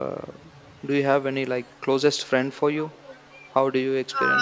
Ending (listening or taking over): taking over